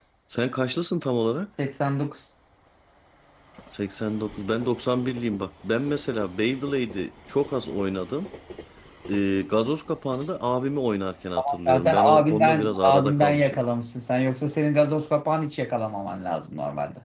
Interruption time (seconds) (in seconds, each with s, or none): 11.7 s